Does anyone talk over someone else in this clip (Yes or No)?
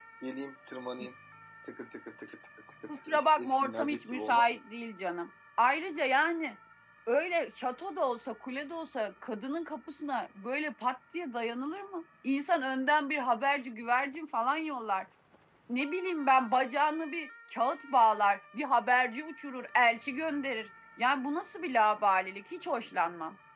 Yes